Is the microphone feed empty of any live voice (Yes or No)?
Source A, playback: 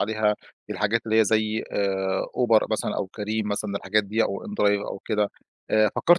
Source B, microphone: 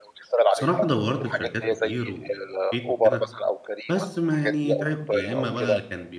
No